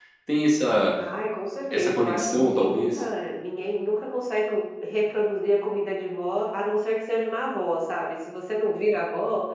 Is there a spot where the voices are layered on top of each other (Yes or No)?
Yes